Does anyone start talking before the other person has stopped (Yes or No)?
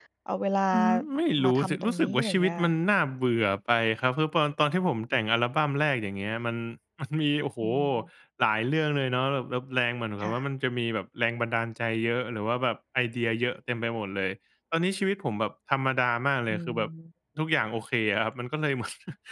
Yes